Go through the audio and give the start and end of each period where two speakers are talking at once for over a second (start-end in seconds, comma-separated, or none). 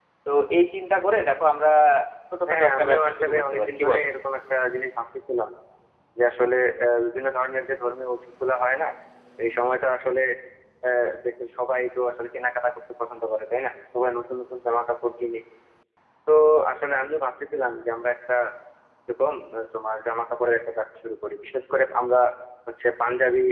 2.5-4.1